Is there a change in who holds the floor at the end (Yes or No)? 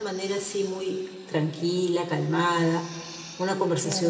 Yes